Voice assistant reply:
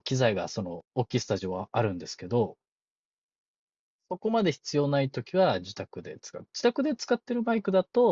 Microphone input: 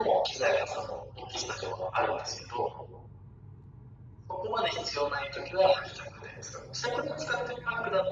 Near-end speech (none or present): none